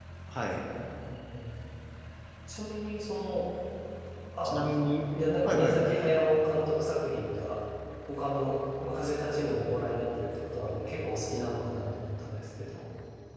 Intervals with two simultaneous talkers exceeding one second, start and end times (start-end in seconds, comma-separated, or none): none